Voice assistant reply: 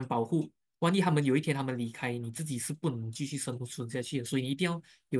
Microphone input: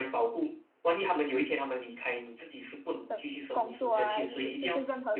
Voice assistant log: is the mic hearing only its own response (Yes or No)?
No